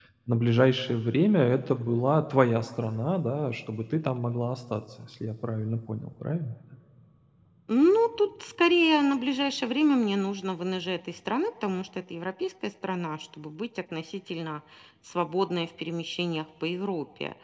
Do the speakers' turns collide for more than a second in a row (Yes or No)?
No